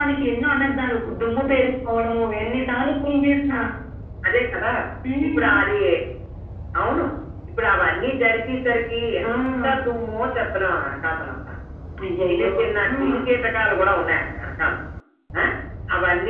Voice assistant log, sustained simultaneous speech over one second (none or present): none